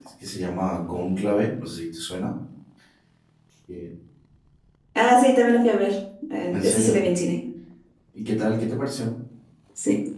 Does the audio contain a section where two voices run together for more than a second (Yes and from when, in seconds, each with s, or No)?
No